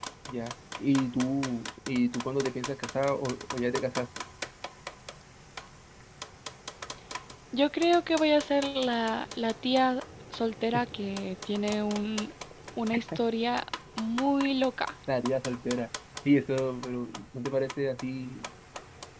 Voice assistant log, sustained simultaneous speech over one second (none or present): none